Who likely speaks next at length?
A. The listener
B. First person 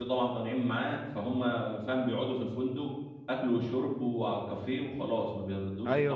A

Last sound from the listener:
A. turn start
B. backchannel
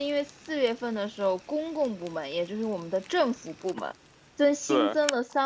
B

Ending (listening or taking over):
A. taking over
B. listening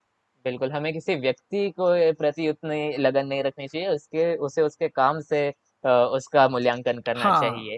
A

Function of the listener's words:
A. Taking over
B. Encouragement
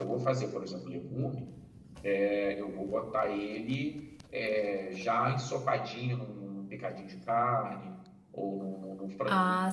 B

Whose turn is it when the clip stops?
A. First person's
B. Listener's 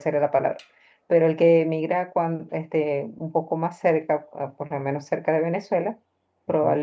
A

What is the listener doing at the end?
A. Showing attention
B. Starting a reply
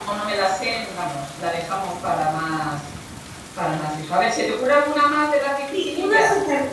B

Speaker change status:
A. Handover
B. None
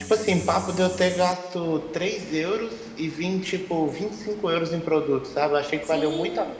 A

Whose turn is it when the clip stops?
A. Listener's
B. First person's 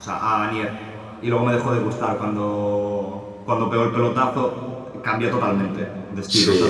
A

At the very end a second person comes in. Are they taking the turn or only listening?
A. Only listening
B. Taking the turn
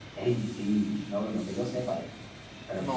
B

